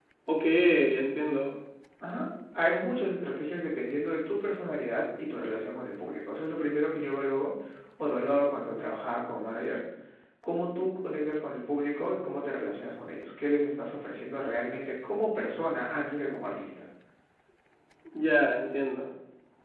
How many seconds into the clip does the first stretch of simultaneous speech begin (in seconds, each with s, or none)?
none